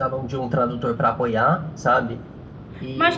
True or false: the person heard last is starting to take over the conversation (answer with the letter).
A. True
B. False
A